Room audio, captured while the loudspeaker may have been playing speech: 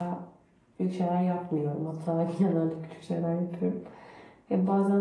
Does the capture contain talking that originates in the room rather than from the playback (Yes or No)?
Yes